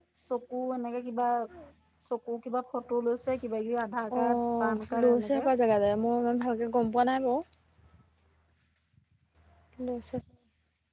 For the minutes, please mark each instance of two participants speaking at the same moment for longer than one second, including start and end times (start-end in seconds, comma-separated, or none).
4.2-5.5